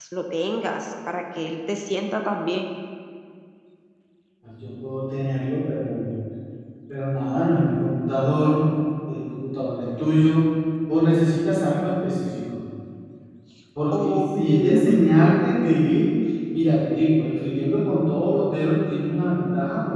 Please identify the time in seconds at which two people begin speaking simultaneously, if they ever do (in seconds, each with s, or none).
13.9 s